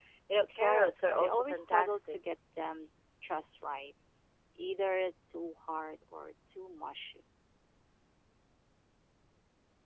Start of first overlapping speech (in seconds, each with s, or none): 0.6 s